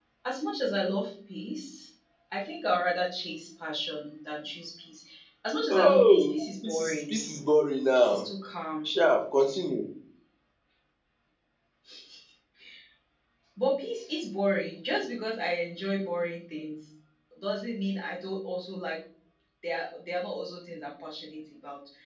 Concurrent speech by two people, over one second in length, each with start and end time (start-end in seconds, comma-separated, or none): 5.7-7.2